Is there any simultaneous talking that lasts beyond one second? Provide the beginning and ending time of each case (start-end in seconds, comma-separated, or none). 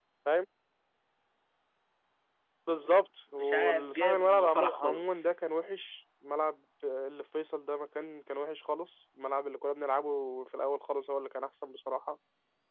3.4-5.4